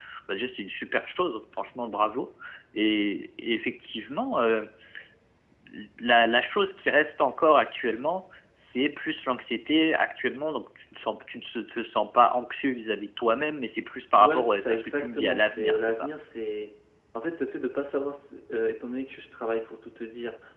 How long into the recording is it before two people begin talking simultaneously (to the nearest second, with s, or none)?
14 s